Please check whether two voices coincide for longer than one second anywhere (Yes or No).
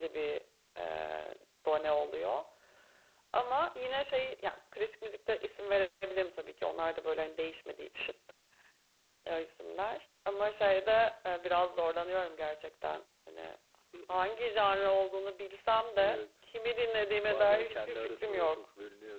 Yes